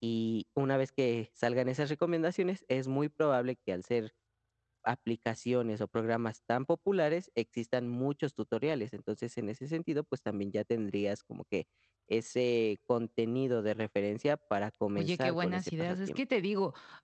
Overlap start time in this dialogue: 15.0 s

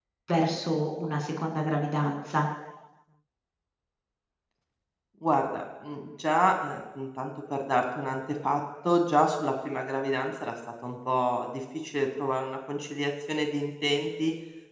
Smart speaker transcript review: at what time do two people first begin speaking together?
none

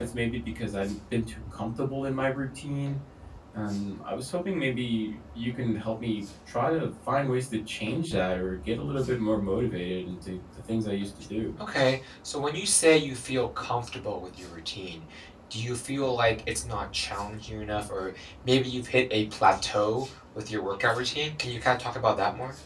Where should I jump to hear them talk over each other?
none

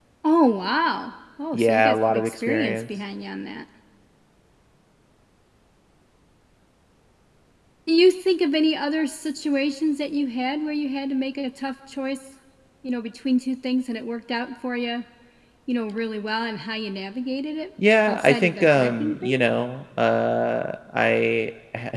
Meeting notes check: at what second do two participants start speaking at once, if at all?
1.5 s

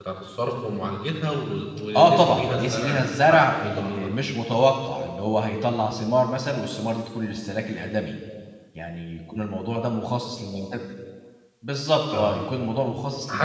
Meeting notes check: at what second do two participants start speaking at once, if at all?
1.9 s

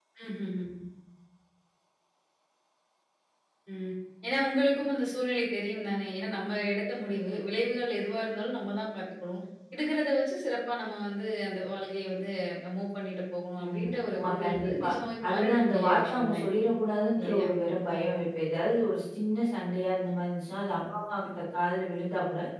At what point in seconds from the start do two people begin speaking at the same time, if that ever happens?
13.6 s

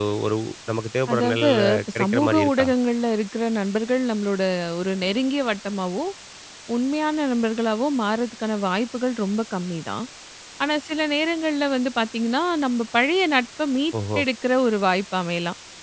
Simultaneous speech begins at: 1.1 s

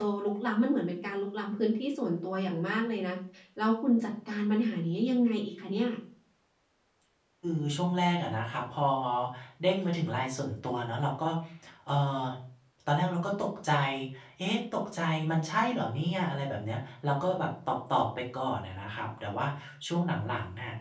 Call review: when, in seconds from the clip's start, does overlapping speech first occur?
none

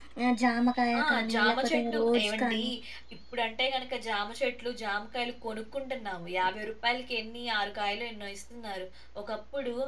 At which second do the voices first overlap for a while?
1.0 s

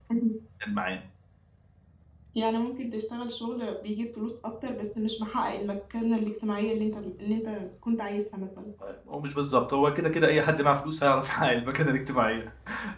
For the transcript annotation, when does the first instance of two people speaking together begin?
none

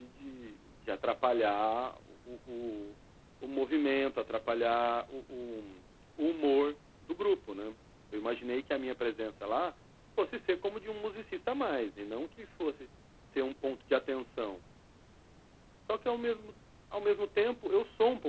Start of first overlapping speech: none

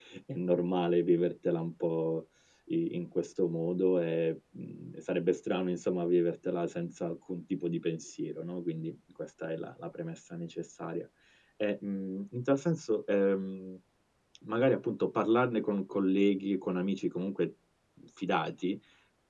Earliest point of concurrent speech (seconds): none

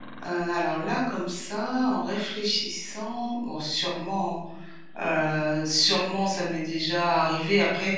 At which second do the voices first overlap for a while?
none

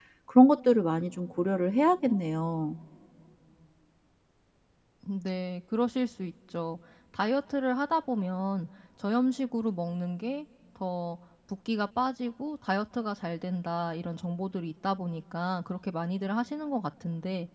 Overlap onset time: none

